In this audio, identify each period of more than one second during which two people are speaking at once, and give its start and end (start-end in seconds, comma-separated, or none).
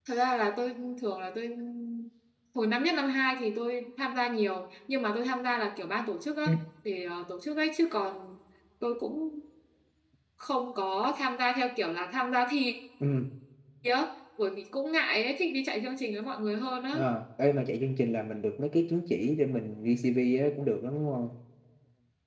none